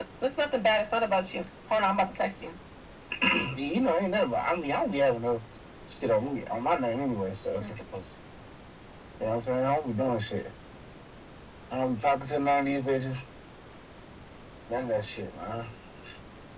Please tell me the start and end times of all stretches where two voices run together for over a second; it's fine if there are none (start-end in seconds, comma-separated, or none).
none